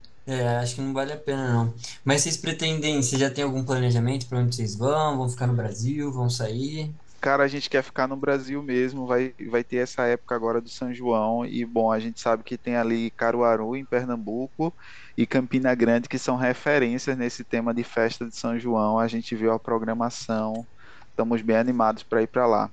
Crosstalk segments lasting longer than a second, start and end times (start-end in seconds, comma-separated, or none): none